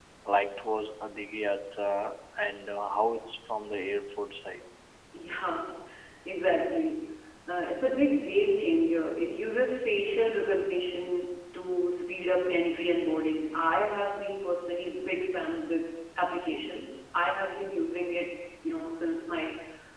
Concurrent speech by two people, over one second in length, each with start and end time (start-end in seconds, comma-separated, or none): none